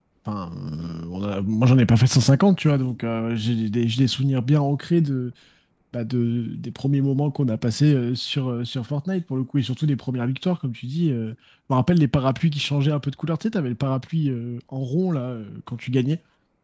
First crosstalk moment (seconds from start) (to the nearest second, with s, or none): none